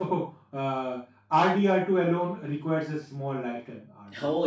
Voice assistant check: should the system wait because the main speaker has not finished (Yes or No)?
No